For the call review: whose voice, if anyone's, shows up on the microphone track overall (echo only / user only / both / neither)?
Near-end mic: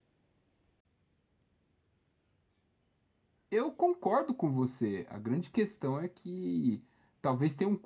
user only